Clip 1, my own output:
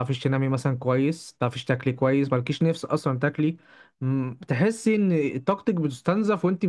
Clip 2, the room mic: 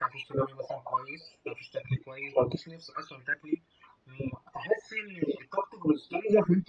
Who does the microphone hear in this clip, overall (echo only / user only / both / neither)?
echo only